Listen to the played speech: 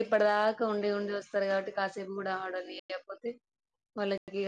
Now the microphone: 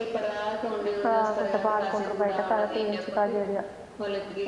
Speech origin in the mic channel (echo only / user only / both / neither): both